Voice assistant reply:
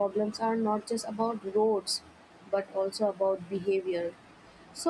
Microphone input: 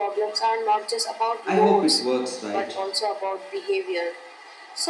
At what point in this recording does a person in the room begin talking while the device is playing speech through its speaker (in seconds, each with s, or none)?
1.4 s